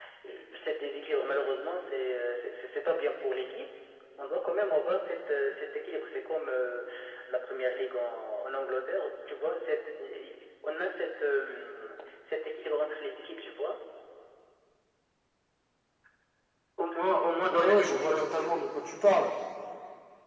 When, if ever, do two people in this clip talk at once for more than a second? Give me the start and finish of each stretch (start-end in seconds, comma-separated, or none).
17.5-18.7